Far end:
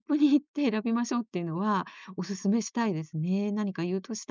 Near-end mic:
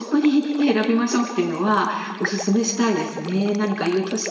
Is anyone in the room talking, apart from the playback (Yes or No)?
No